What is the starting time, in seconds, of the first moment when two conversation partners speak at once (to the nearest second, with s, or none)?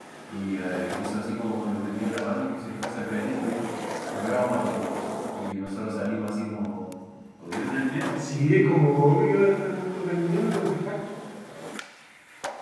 none